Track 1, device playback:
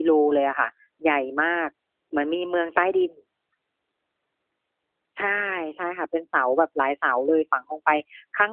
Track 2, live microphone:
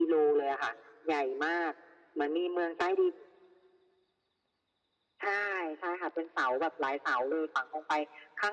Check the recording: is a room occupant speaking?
No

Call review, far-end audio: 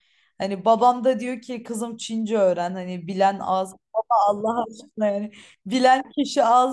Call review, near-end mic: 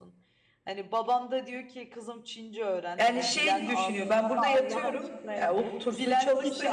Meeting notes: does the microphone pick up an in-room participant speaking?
Yes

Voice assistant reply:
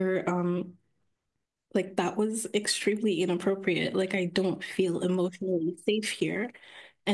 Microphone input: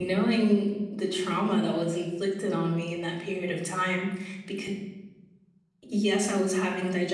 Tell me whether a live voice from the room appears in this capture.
Yes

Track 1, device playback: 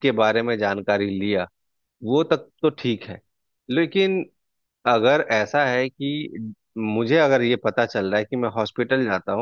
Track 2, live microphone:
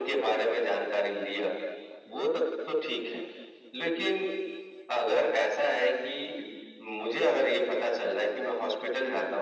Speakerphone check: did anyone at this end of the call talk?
No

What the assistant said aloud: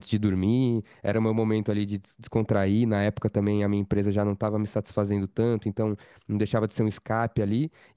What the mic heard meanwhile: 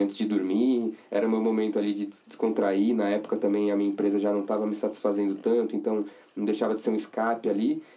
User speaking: No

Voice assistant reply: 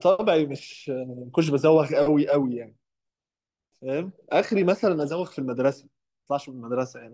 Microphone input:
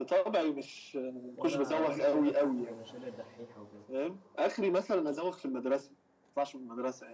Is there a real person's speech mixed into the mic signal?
Yes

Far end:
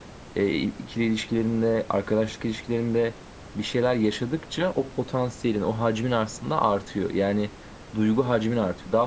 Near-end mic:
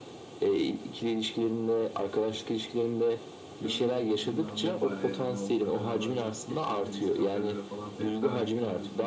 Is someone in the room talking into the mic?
Yes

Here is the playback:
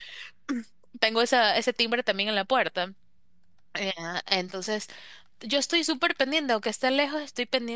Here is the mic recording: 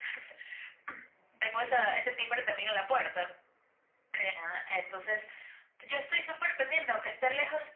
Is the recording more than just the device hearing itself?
No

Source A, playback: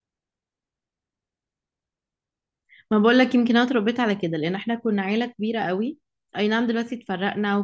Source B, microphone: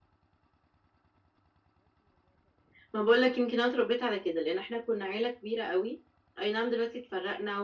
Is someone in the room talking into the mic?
No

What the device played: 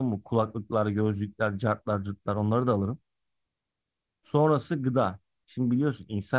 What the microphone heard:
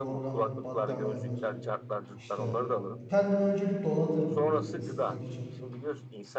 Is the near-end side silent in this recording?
No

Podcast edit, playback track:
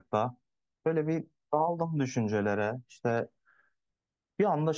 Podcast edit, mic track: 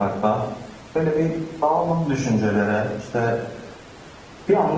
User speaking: No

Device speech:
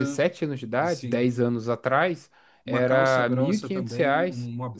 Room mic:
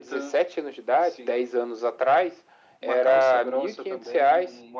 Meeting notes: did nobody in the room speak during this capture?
Yes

